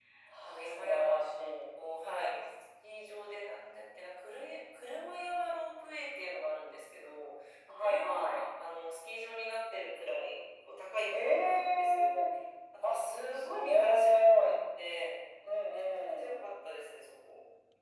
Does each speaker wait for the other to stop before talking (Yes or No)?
No